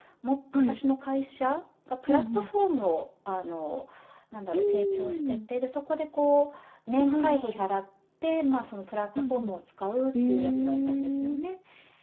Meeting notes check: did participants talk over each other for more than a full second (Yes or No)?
Yes